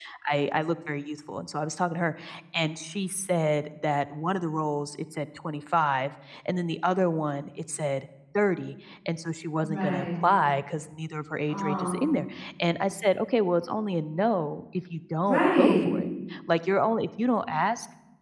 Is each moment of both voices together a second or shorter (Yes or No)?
Yes